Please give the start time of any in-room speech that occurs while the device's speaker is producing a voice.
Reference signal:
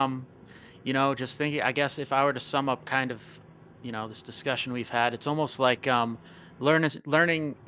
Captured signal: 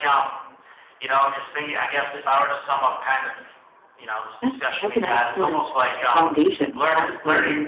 4.4 s

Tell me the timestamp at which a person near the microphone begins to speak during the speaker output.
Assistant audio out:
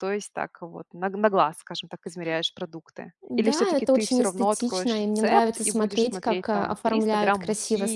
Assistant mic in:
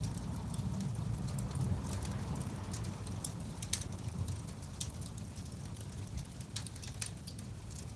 none

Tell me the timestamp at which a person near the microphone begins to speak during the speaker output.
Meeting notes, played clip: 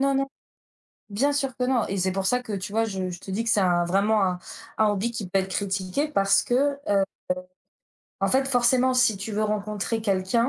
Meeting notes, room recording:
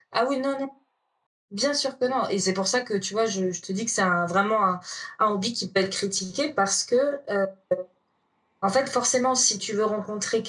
none

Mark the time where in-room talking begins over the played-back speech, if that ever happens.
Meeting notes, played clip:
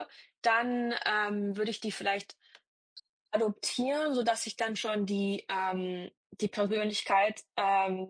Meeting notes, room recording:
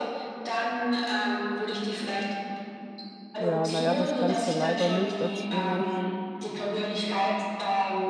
3.4 s

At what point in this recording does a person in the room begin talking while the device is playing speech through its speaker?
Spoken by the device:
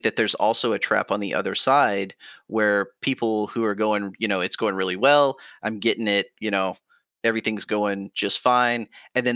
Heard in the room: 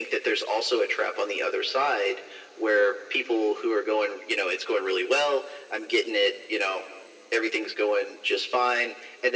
none

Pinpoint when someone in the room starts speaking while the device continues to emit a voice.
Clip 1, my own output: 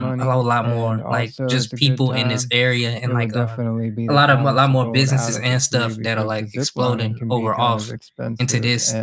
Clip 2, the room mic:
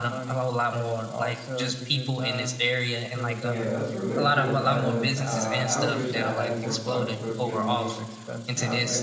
3.4 s

